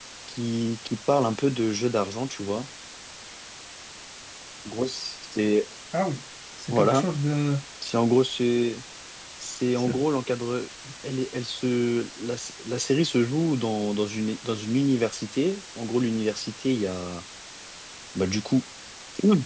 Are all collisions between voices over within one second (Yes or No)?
Yes